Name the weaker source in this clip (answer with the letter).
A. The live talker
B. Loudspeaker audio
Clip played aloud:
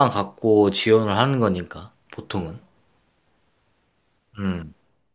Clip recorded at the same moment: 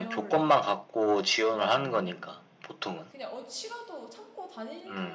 A